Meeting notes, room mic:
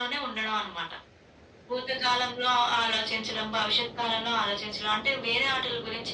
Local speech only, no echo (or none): none